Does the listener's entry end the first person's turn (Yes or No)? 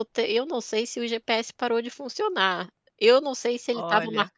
No